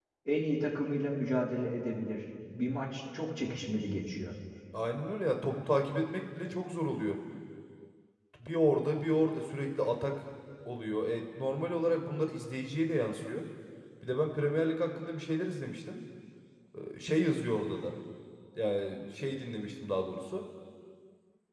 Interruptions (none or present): none